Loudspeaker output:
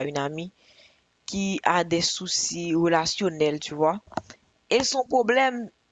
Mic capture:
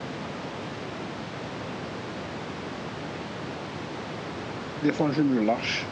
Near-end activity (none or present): present